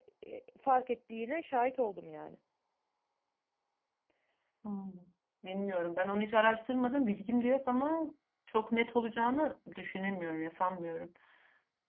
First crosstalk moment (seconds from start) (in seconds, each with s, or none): none